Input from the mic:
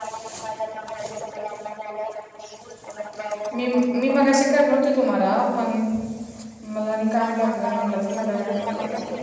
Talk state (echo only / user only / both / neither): both